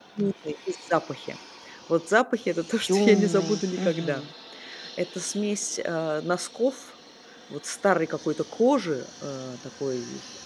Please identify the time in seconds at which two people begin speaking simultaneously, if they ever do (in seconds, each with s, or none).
2.8 s